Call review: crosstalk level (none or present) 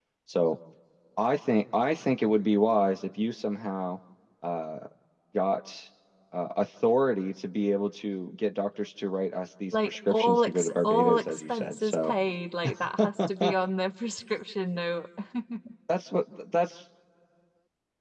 present